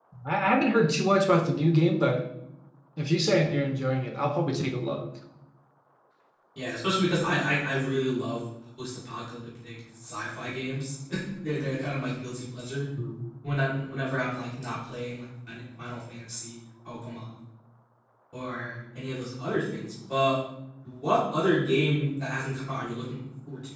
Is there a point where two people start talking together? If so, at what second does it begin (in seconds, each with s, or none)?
none